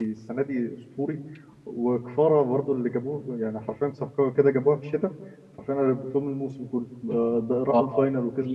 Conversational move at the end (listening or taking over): taking over